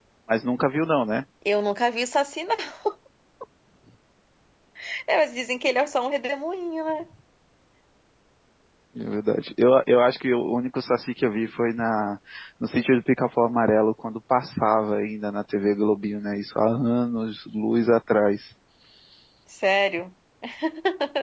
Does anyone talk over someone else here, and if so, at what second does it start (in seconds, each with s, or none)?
none